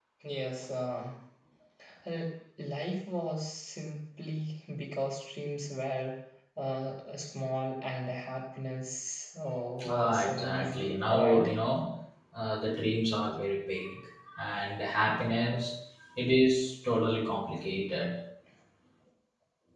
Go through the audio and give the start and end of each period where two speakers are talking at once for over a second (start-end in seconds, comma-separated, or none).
9.9-11.5